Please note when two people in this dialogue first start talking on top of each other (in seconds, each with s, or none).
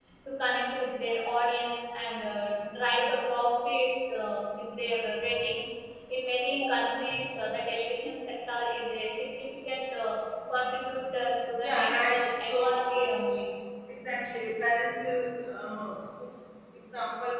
11.6 s